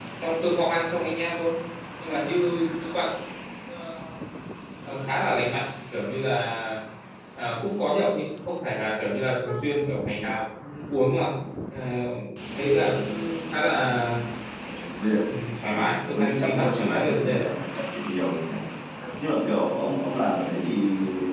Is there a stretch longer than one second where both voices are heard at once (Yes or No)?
Yes